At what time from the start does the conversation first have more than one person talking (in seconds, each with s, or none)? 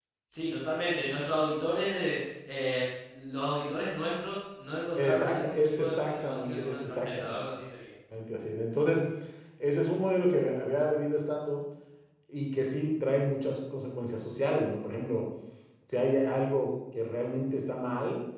5.0 s